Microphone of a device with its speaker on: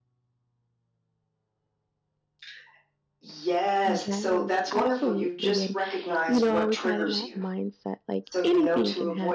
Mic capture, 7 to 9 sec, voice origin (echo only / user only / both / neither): both